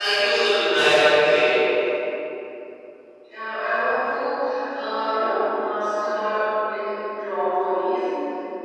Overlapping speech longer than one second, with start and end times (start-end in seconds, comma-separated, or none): none